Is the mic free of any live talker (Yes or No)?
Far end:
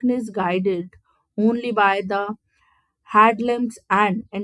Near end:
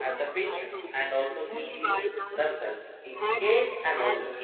No